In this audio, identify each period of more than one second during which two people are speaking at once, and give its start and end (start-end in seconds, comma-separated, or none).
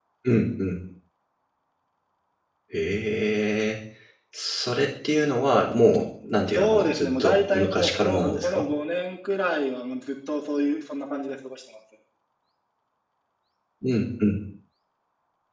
6.5-8.7